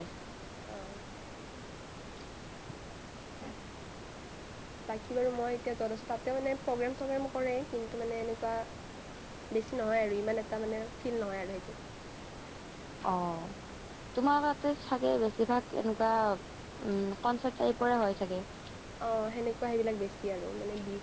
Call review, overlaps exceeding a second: none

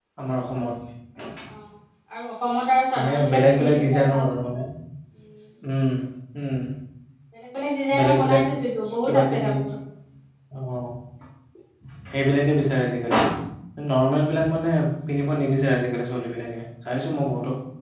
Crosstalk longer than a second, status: present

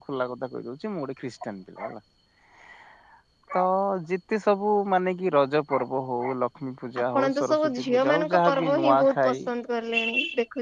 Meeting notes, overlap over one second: present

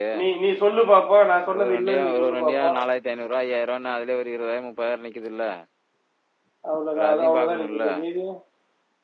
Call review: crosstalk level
present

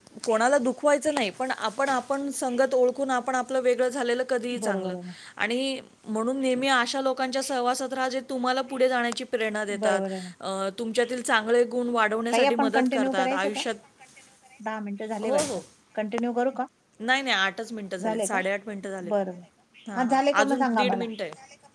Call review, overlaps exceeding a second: present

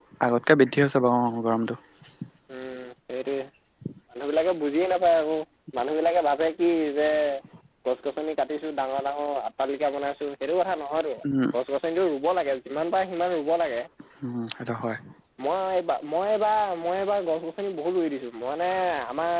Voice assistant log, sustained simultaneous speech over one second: none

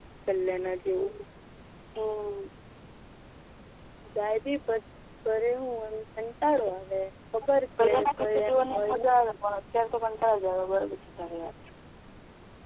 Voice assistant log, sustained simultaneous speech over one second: present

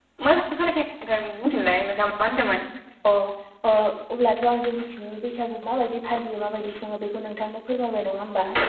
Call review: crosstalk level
none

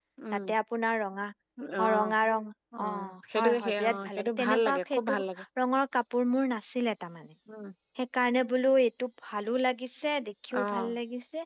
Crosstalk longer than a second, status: present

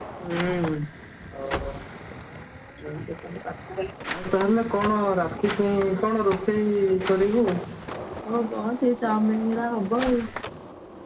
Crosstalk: none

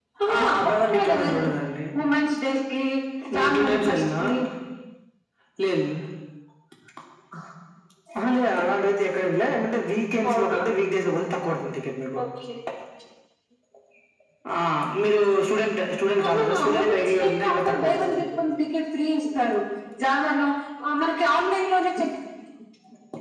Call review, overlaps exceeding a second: present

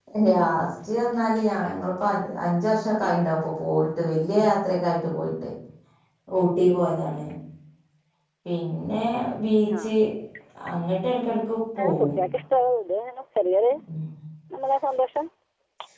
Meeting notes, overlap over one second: none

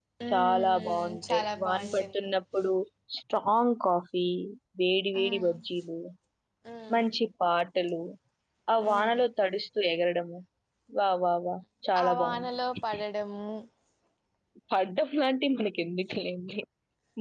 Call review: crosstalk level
present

